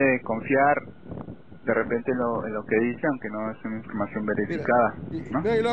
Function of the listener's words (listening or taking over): taking over